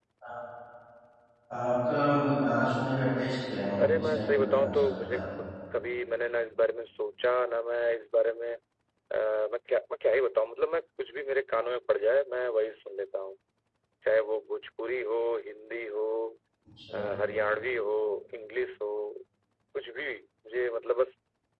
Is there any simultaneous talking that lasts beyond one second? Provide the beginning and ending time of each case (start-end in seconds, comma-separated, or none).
3.8-5.2